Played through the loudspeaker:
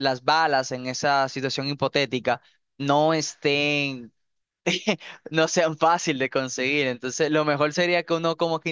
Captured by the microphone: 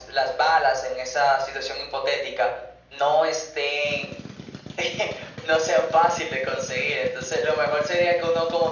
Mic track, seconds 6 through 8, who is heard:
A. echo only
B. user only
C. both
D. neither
A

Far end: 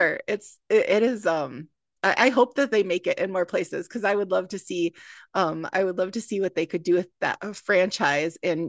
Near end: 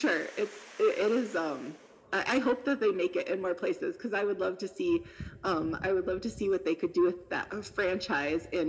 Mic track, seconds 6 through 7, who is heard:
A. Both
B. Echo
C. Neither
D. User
B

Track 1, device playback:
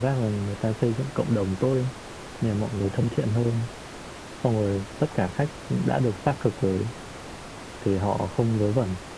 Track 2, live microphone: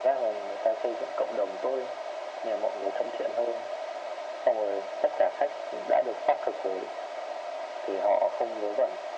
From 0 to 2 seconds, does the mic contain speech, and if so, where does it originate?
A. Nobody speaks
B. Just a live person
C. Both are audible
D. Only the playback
D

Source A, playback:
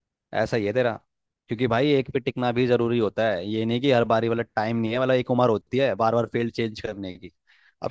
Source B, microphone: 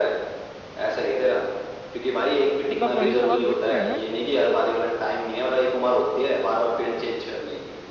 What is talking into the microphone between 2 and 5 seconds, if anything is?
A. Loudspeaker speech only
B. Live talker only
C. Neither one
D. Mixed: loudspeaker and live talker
D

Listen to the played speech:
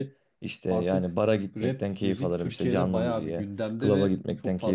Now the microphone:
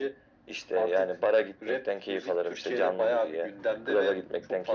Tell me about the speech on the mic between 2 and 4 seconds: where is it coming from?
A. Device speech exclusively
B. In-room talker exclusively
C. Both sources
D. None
A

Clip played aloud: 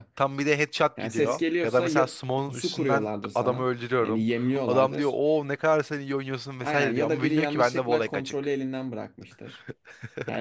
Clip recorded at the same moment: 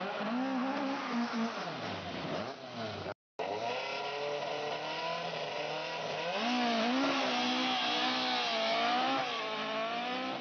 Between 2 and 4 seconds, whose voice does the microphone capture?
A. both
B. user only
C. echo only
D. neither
D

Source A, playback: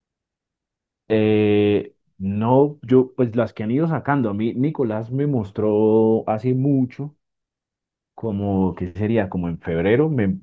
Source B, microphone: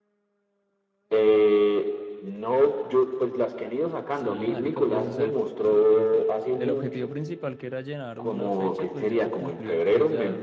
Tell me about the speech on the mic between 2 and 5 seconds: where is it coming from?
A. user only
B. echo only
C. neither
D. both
D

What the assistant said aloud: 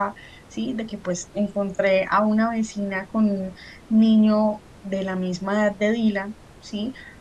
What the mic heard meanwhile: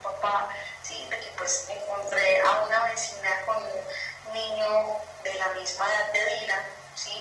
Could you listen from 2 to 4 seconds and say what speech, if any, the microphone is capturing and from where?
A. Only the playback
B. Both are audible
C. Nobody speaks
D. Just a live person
A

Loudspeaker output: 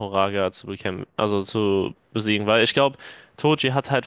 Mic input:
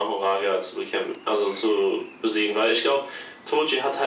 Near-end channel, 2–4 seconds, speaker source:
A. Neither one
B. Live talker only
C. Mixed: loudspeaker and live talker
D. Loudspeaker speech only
D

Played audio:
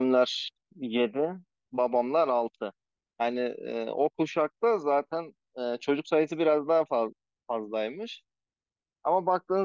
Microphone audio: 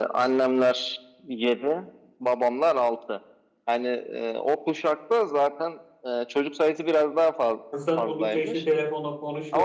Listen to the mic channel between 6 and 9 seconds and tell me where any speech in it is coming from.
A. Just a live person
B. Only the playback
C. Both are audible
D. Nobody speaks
C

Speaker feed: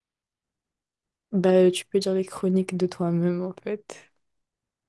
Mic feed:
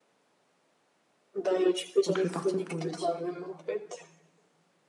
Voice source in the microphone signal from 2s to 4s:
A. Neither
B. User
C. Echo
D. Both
D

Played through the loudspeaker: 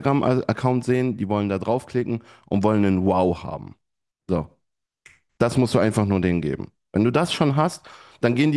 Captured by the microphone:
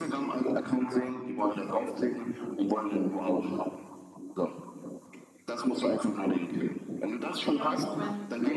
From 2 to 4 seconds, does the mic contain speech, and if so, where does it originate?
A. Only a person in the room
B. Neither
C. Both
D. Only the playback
D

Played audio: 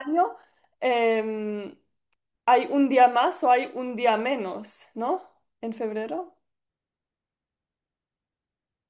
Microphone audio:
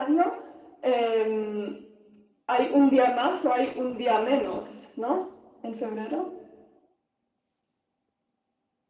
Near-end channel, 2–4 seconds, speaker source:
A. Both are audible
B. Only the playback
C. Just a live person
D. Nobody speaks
B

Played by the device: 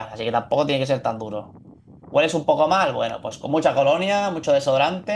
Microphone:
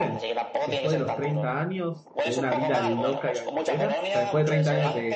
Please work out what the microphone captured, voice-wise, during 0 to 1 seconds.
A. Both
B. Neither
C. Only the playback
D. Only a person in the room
A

